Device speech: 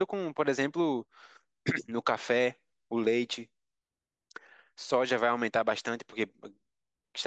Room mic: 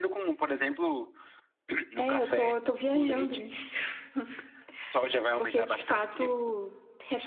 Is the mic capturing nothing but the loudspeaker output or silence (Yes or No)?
No